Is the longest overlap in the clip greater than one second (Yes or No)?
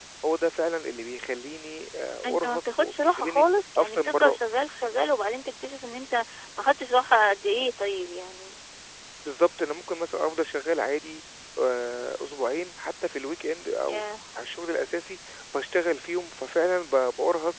Yes